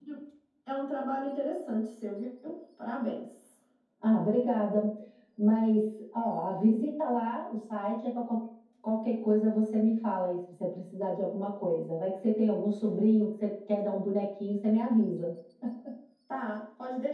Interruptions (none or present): none